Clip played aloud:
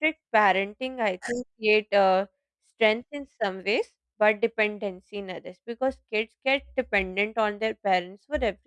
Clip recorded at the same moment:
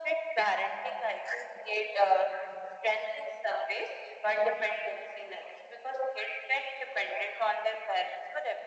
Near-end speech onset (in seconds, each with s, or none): none